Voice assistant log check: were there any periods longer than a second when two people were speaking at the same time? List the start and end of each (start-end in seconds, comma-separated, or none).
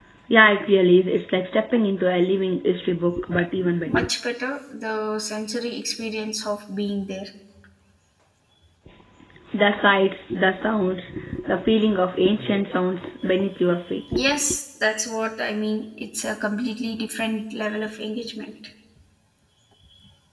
none